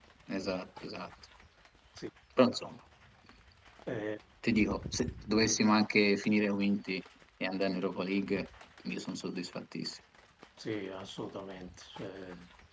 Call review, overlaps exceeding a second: none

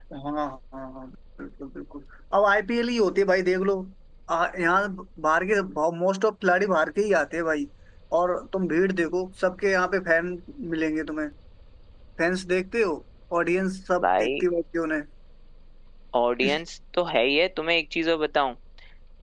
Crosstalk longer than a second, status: none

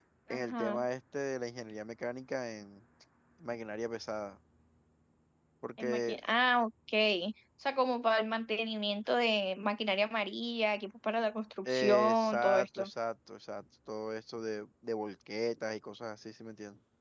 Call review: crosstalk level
present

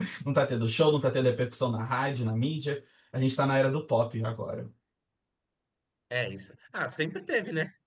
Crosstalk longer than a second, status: none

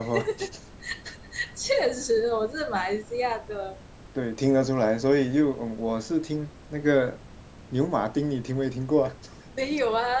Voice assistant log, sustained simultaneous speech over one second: none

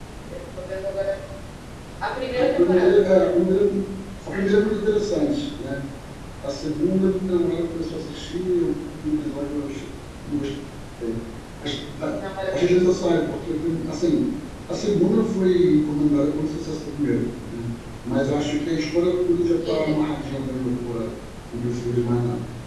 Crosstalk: present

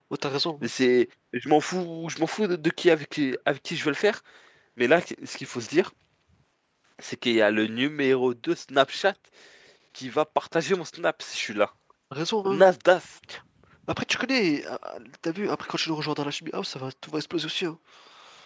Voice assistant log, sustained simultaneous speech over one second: none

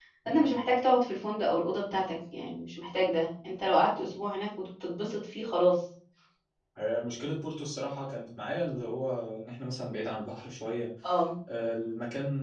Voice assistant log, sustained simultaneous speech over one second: none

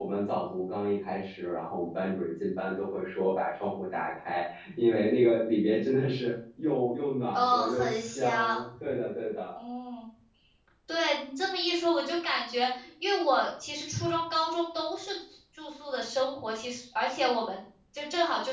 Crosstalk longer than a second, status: present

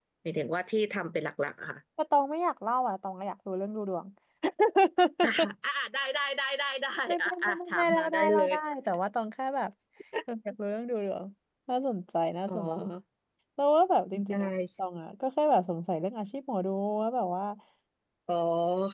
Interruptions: present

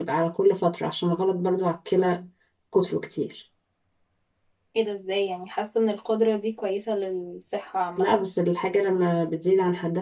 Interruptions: none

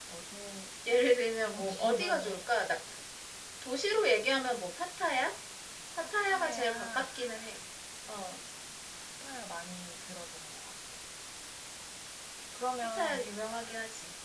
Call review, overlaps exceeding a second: present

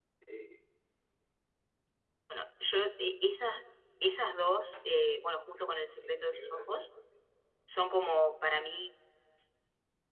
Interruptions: present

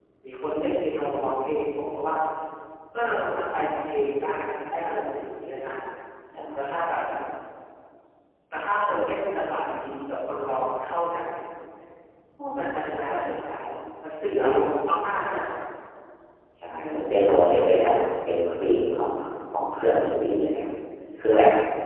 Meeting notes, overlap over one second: none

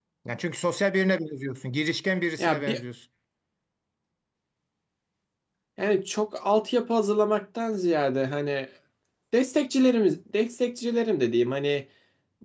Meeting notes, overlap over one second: none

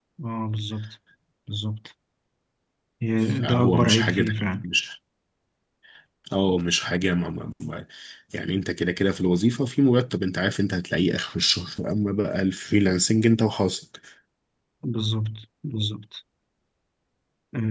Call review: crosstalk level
present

